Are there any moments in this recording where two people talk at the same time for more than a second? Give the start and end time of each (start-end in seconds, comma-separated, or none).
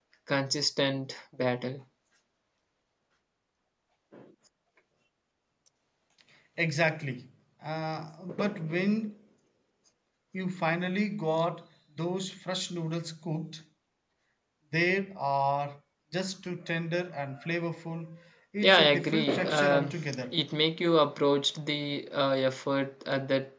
18.6-19.9